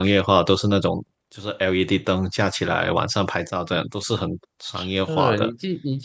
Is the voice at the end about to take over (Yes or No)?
Yes